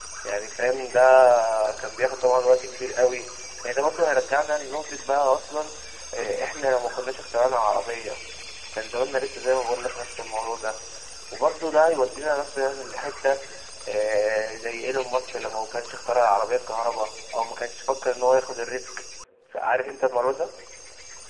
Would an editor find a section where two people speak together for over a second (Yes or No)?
No